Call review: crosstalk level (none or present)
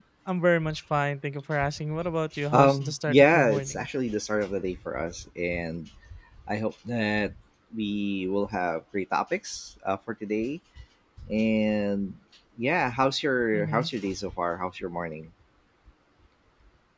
present